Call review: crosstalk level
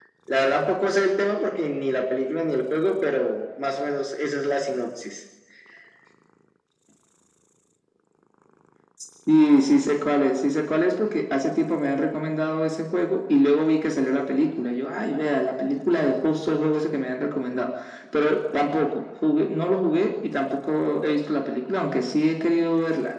none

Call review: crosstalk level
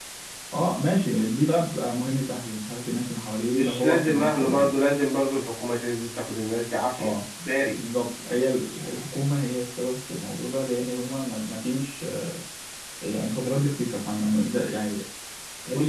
present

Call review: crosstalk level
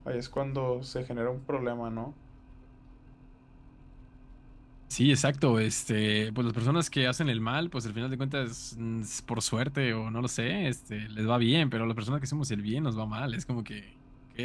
none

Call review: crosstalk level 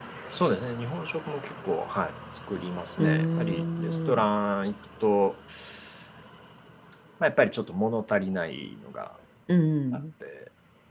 present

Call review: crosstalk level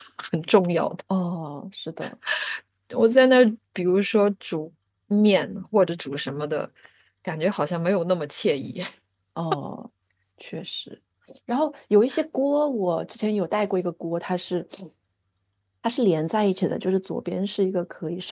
none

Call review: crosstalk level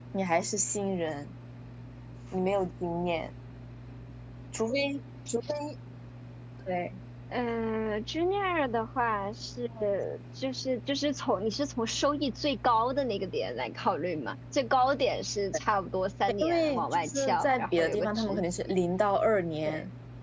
present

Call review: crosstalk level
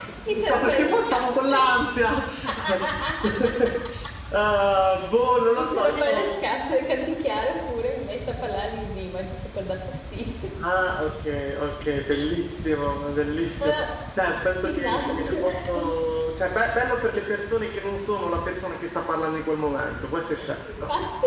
present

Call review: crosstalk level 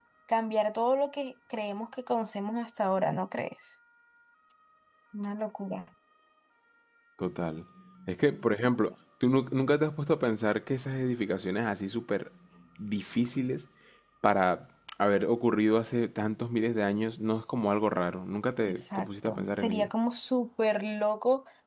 present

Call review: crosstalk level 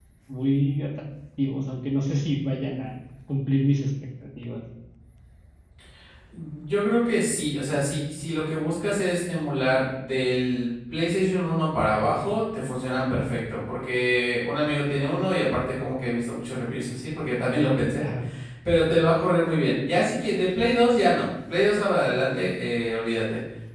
none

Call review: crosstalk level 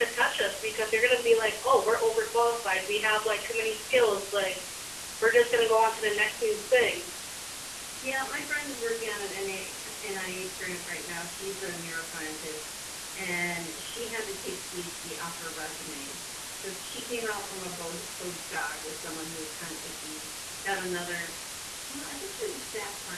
none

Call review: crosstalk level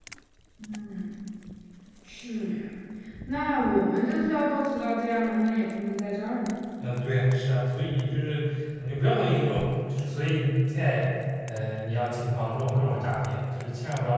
none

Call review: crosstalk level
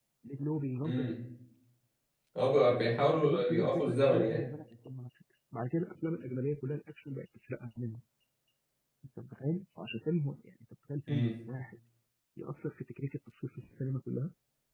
present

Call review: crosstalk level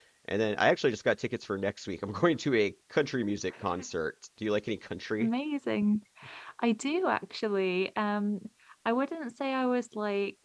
none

